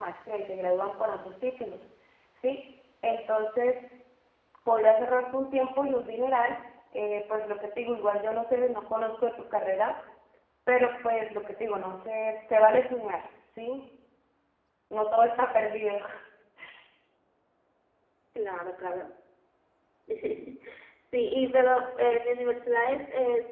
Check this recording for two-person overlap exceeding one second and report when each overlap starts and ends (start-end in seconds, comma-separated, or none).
none